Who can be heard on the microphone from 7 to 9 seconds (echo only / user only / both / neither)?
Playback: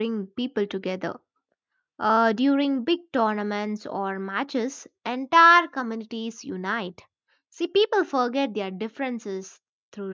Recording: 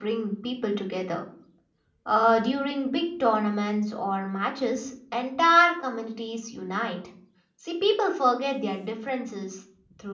echo only